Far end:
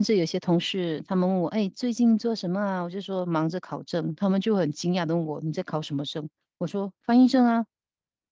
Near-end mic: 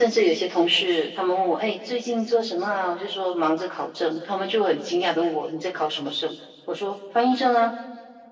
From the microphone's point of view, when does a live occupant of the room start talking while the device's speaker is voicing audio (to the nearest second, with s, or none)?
none